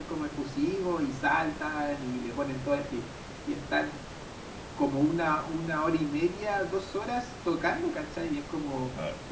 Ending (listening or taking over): listening